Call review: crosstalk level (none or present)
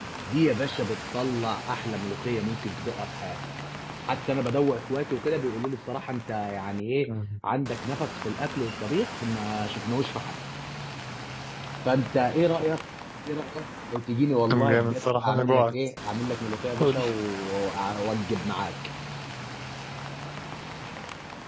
present